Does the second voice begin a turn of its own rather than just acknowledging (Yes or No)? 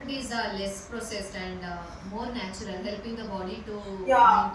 Yes